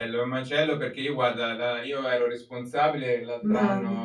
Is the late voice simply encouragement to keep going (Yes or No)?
Yes